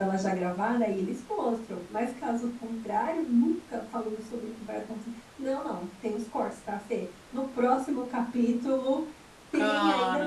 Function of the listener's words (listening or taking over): listening